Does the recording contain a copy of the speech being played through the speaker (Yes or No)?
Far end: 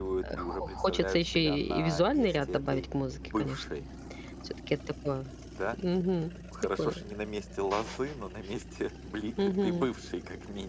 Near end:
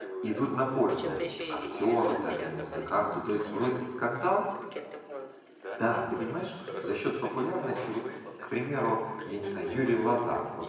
Yes